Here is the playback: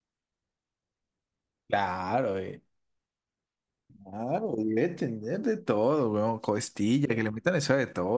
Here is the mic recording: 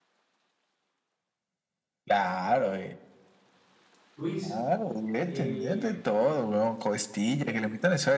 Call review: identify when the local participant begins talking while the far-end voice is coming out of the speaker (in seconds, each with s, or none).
4.2 s